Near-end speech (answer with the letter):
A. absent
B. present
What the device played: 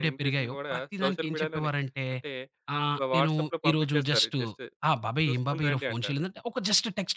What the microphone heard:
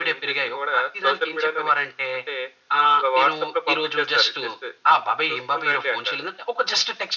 A